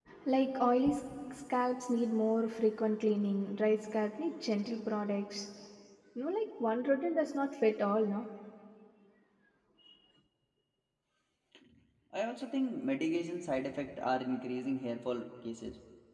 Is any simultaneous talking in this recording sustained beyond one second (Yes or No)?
No